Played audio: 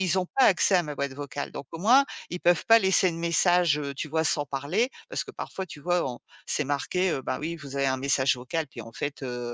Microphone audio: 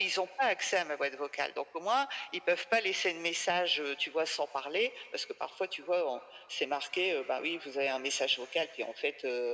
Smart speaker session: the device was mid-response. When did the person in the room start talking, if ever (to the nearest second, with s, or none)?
none